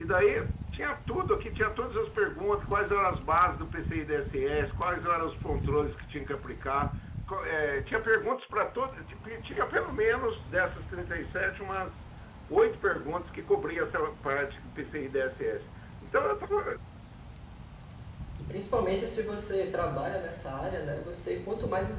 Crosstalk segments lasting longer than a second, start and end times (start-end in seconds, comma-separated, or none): none